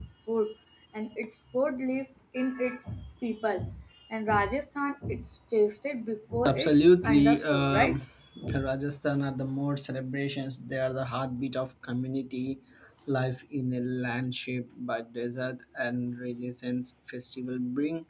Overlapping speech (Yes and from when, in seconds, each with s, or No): Yes, from 6.5 s